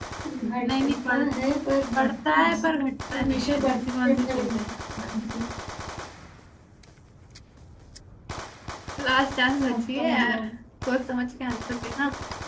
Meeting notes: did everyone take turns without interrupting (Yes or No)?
No